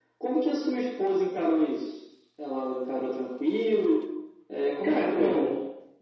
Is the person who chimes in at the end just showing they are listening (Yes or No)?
No